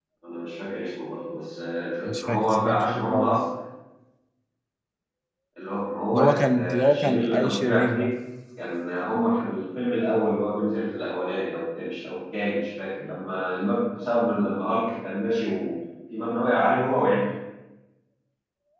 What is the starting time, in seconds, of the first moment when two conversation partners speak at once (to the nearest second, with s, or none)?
2 s